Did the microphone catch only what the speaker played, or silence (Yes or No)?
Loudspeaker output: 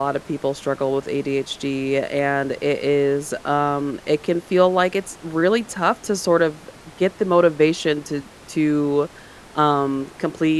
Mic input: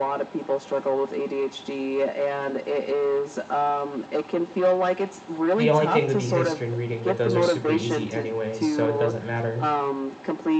No